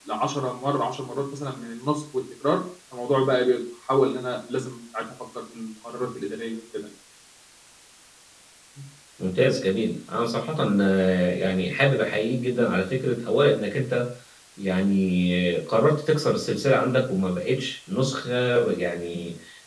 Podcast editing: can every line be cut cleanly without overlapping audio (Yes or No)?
Yes